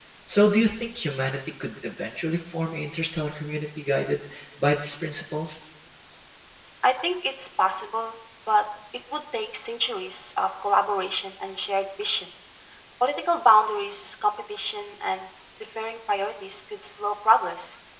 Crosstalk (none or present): none